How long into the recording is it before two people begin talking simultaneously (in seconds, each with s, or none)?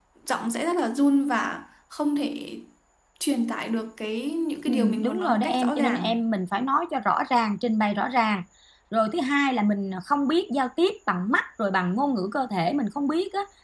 4.7 s